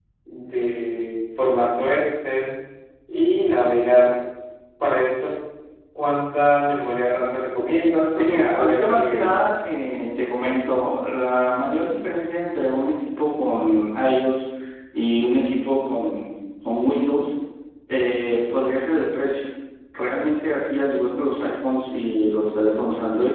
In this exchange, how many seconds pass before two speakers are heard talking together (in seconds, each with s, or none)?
8.2 s